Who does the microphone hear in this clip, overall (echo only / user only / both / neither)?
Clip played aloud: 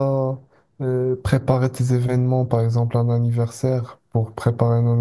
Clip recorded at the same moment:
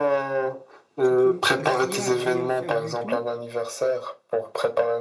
both